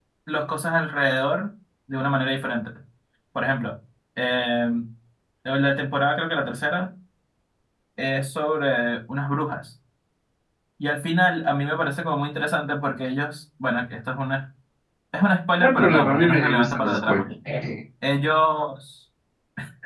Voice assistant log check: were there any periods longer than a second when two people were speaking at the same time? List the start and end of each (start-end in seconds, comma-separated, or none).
15.6-17.2